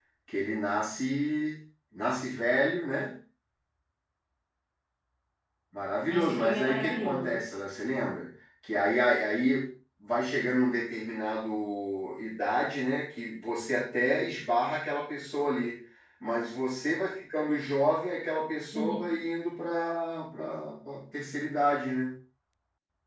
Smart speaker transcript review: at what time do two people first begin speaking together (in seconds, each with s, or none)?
6.1 s